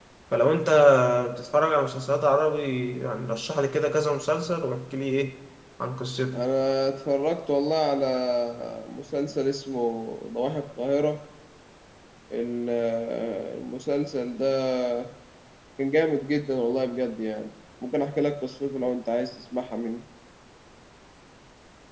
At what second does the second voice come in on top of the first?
none

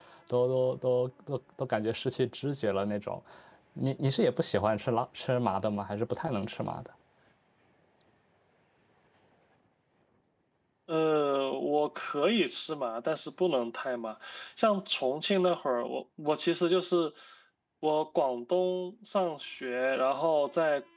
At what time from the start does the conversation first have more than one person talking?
none

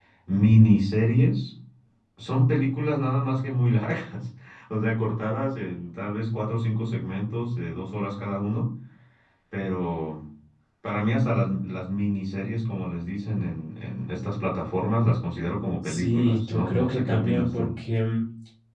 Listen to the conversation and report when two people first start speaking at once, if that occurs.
15.8 s

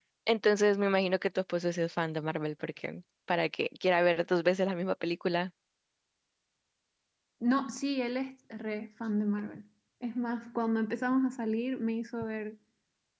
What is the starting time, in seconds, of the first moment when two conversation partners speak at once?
none

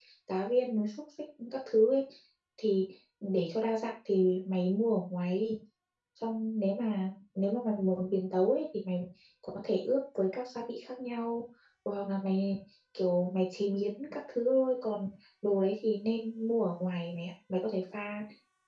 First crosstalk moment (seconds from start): none

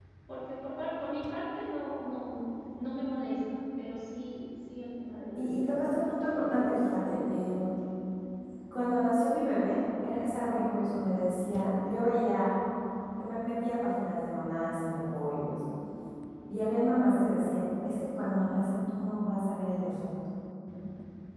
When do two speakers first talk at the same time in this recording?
5.4 s

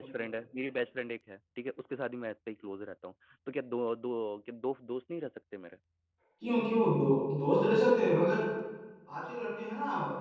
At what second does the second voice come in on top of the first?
none

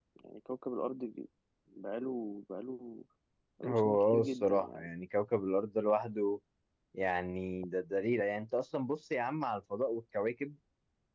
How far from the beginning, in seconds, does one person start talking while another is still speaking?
3.6 s

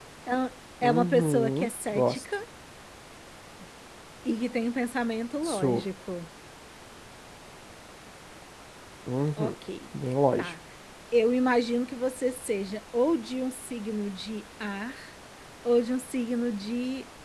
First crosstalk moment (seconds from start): 0.8 s

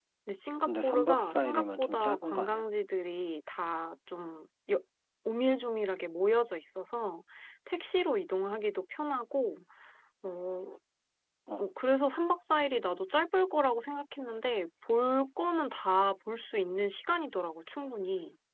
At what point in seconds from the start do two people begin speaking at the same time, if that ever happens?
0.6 s

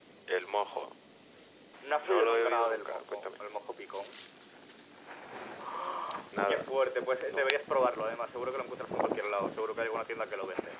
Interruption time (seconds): 2.0 s

